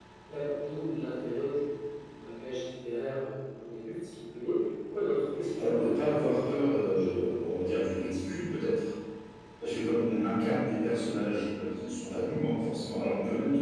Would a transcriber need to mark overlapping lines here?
Yes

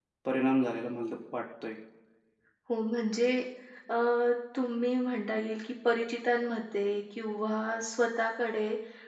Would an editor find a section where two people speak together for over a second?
No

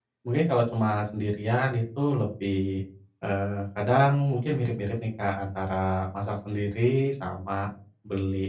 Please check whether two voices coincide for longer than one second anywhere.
No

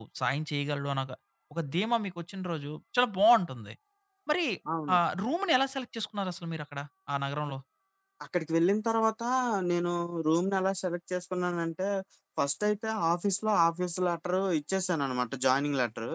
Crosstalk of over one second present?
No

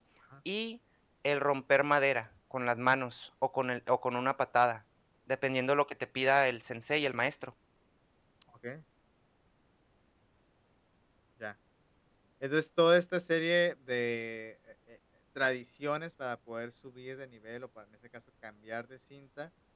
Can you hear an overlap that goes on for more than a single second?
No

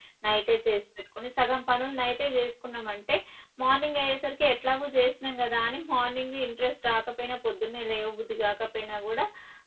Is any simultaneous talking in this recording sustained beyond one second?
No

